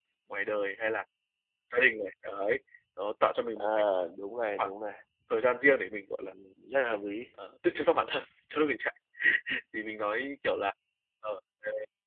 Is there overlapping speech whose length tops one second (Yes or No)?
No